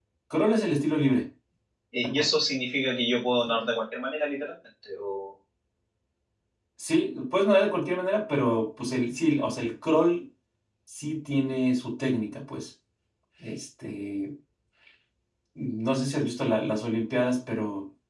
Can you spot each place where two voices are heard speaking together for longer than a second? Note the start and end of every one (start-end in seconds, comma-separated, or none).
none